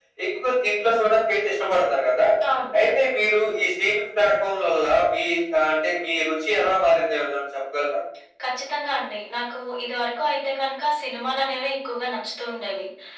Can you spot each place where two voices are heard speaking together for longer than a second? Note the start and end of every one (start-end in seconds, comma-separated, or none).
none